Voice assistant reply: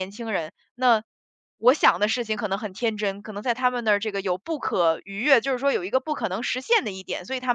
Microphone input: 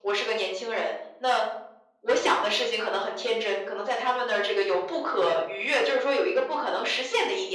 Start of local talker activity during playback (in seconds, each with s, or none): none